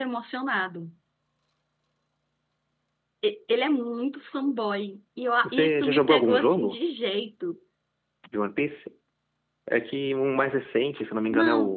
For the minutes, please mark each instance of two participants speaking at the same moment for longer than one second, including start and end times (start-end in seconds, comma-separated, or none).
5.4-6.8